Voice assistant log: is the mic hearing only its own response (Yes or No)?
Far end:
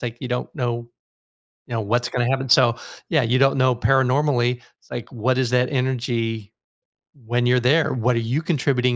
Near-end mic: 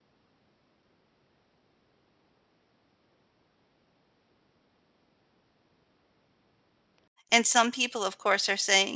No